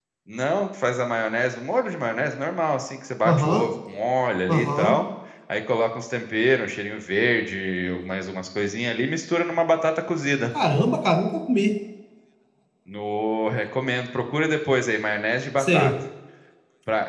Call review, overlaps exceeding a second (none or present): none